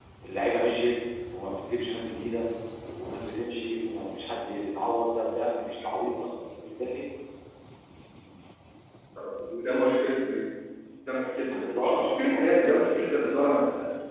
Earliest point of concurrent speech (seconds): 11.5 s

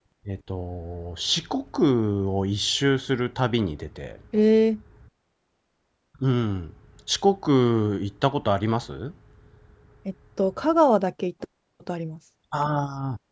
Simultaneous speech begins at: none

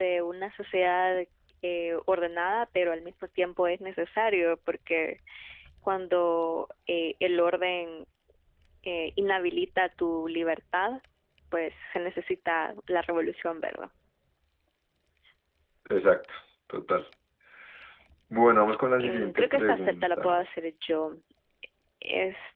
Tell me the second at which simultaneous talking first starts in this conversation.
19.0 s

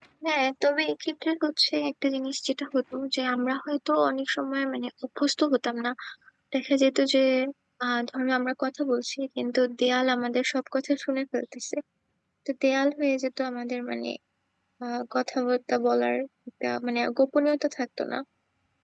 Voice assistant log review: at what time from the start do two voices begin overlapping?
none

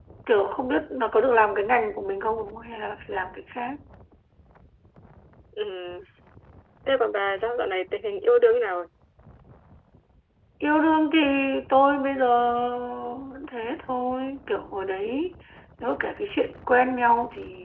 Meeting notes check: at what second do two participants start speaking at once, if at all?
none

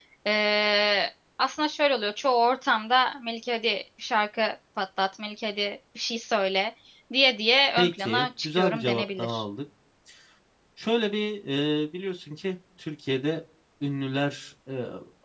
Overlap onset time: 7.8 s

